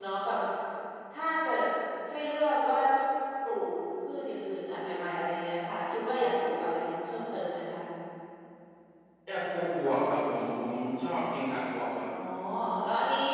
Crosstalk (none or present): none